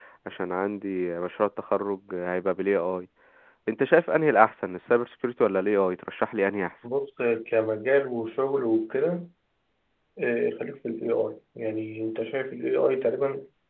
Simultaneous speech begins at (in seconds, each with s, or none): none